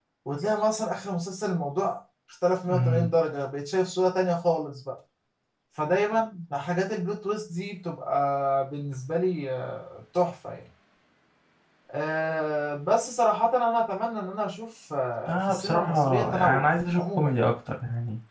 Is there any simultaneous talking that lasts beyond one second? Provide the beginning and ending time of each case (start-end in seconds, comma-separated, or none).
15.3-17.5